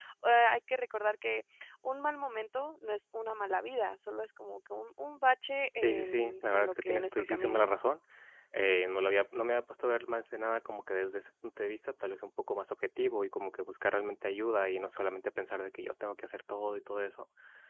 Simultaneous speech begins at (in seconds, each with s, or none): 5.8 s